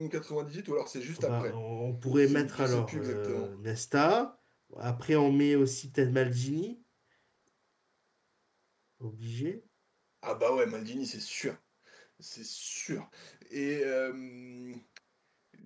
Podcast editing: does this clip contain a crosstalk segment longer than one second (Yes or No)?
Yes